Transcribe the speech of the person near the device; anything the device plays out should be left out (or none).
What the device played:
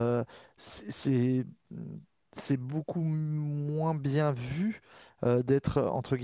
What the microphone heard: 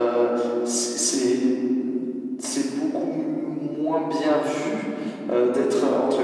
none